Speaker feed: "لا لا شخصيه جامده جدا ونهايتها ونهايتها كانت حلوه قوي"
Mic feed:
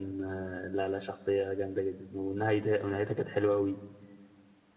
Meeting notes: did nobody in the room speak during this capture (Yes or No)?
Yes